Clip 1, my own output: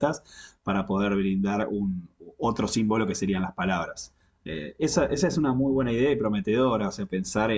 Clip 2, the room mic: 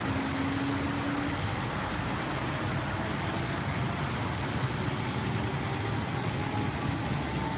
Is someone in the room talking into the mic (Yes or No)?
No